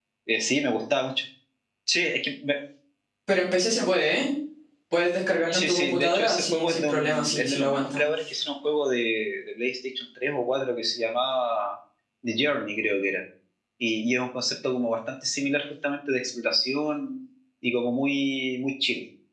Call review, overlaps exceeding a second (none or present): present